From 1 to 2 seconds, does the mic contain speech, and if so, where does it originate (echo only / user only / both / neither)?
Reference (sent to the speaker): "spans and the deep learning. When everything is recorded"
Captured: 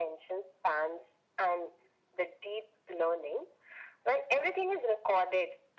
echo only